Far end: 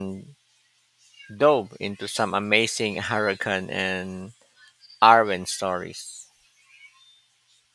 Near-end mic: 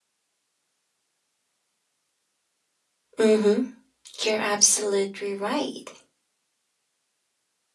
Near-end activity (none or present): present